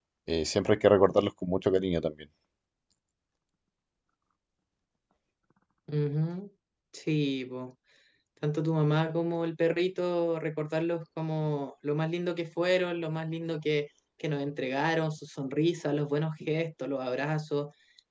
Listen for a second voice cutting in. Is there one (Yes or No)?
No